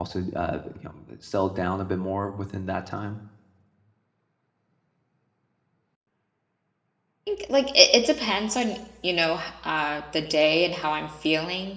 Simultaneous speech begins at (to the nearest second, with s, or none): none